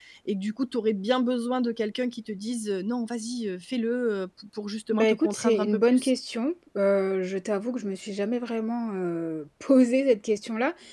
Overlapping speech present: Yes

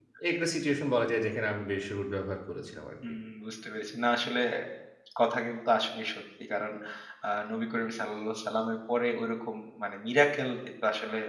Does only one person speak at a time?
Yes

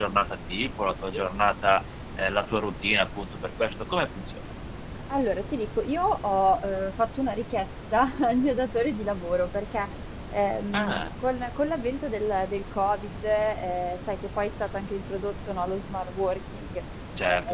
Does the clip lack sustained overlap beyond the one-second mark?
Yes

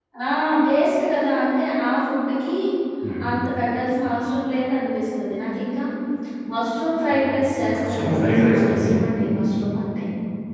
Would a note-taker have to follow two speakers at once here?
Yes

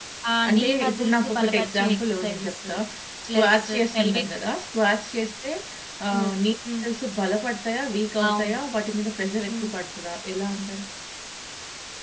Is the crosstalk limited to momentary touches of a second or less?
No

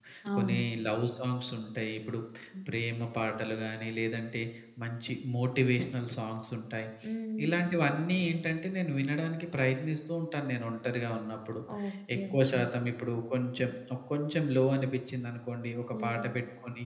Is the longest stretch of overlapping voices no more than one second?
Yes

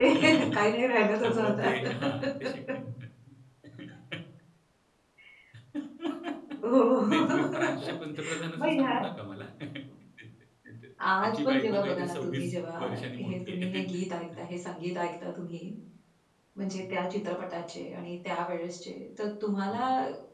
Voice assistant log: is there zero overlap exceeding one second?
No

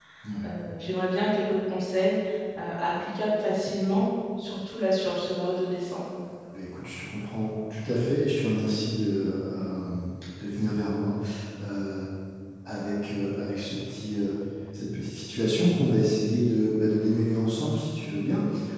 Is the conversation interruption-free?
Yes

